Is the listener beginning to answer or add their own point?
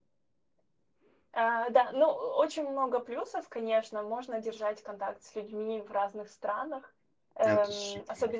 No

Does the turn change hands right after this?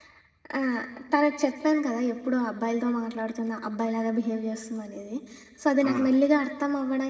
No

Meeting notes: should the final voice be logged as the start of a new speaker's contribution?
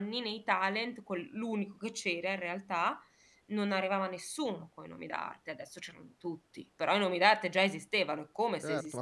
Yes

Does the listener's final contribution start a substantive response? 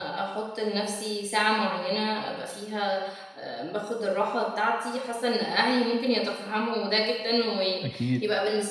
No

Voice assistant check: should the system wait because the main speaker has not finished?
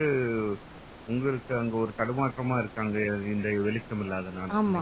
No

